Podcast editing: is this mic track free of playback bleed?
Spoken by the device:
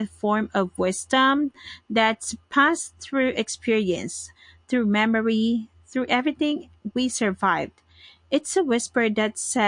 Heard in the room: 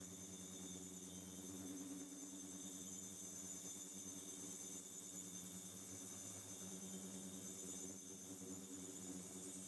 Yes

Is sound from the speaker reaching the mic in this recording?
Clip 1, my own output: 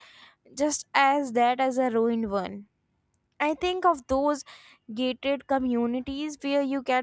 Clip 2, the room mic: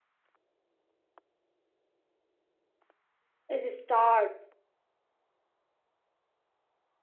No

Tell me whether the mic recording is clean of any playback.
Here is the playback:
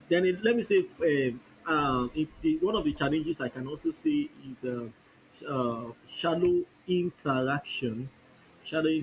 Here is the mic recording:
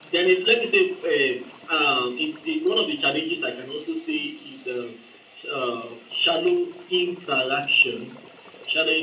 No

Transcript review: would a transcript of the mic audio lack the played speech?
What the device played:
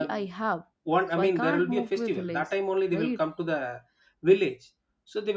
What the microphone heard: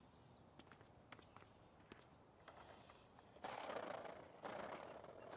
Yes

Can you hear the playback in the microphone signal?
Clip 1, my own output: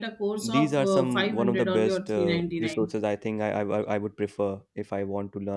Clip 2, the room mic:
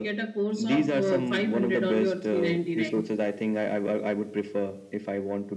Yes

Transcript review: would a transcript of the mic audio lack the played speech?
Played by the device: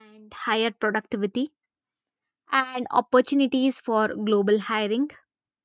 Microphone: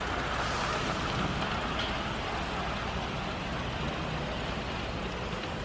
Yes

